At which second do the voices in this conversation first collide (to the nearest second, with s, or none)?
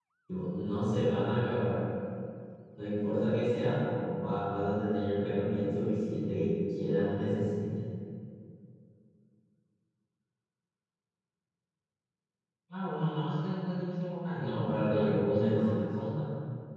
14 s